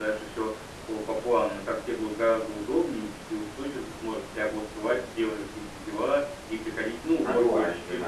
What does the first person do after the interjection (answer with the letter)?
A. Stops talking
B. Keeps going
B